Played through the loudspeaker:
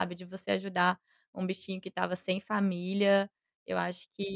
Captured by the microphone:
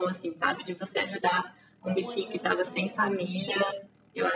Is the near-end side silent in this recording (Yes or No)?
No